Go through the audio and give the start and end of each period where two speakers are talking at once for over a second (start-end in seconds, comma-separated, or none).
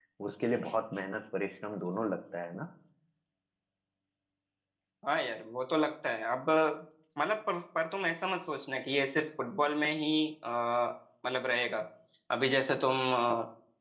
none